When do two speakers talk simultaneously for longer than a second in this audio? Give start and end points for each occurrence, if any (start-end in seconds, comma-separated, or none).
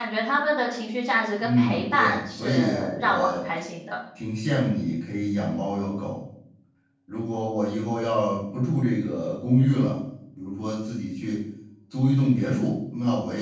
1.4-3.5